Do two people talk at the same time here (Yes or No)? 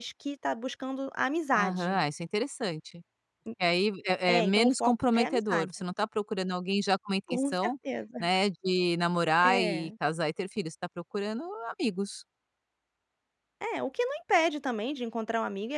Yes